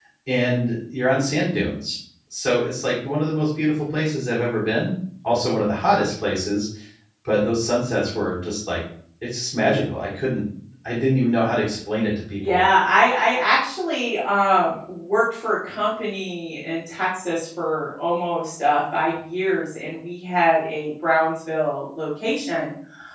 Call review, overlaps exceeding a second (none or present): none